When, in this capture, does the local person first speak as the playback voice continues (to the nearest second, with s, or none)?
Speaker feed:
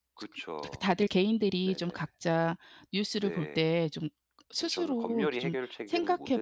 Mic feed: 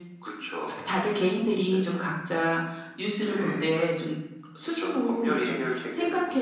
none